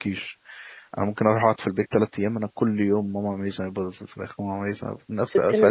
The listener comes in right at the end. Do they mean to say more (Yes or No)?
No